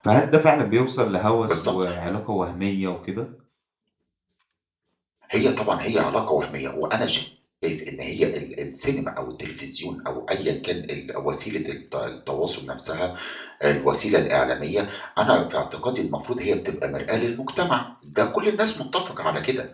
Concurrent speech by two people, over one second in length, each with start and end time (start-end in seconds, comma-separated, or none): none